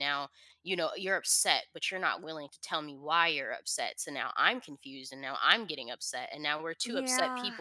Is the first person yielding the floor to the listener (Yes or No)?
No